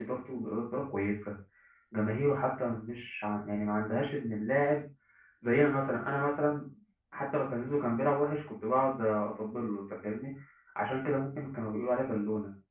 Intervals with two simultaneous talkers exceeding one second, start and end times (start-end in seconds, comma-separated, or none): none